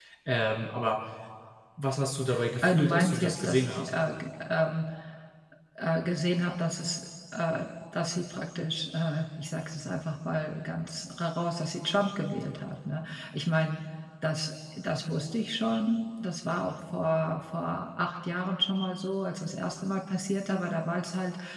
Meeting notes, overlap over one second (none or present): present